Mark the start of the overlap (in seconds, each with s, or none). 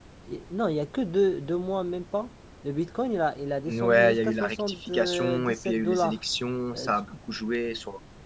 3.7 s